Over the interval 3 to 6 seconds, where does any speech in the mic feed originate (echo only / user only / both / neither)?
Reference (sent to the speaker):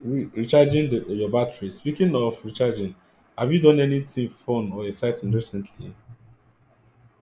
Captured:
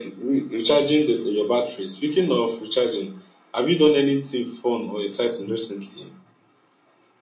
echo only